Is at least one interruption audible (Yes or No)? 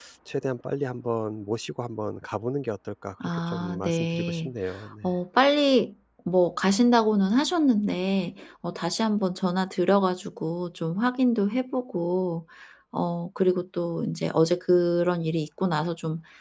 Yes